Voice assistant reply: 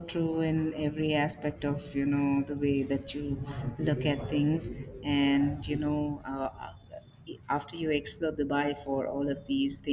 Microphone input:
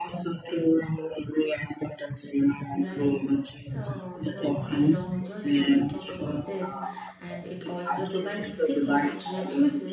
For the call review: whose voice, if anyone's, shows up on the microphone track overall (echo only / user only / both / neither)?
both